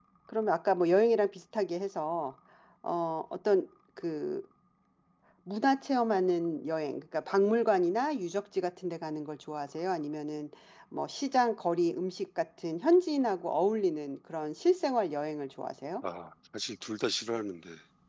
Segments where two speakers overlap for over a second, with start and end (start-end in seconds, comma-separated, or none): none